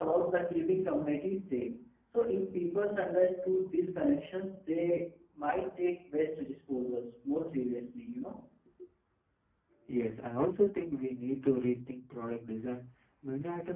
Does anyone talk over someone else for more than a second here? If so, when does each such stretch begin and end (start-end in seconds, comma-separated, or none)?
none